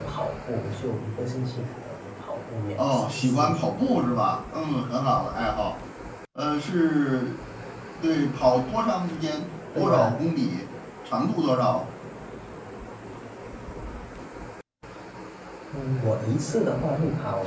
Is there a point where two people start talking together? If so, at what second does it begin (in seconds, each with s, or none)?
2.8 s